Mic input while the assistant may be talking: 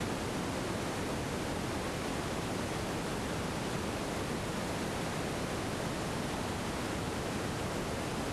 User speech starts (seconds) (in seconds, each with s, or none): none